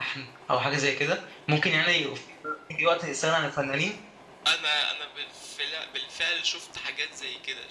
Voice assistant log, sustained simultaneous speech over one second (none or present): none